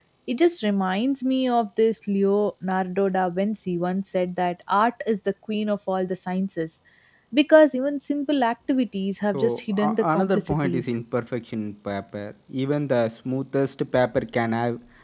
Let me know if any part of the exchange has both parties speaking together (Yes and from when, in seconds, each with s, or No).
Yes, from 9.3 s